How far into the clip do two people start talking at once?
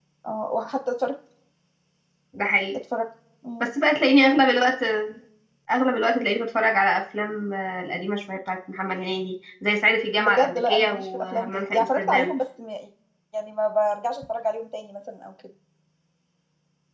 10.2 s

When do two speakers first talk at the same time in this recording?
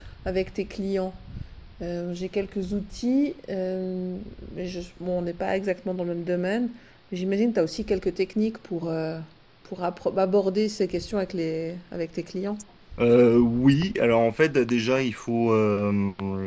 none

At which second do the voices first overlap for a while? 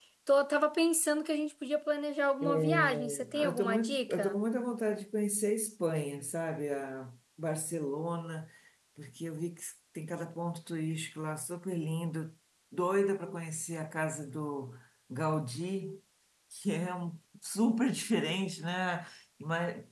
2.4 s

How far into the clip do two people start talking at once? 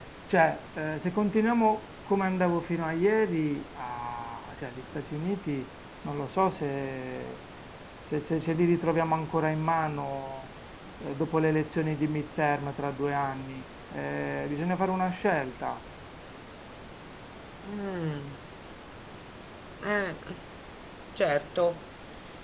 none

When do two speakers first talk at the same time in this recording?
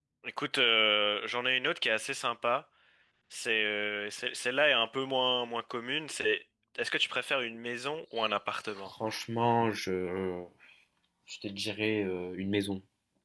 none

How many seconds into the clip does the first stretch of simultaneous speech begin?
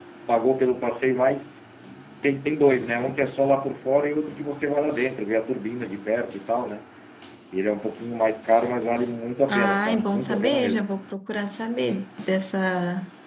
9.5 s

